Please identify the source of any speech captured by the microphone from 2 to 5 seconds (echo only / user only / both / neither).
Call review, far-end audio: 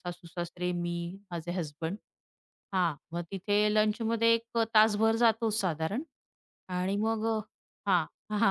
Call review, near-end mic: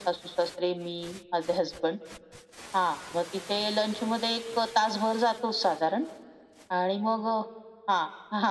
echo only